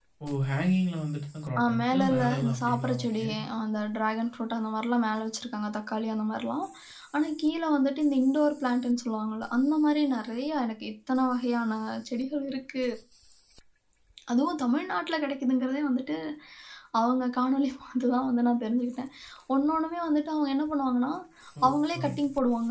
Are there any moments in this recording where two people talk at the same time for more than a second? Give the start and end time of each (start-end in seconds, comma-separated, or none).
1.6-3.2